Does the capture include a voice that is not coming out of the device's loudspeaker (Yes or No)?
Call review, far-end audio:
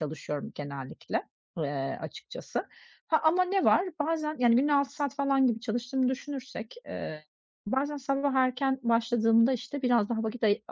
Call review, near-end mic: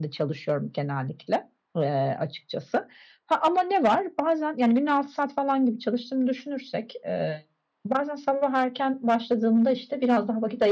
No